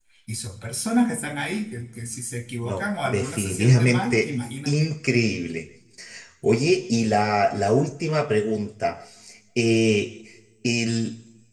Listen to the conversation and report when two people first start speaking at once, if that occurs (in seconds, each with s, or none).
2.6 s